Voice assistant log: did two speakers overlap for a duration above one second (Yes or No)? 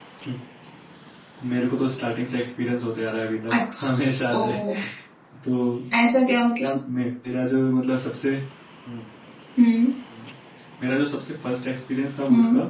No